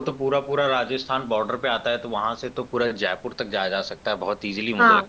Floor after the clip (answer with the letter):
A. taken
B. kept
A